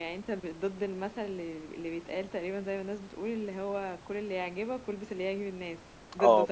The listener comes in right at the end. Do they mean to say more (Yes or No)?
Yes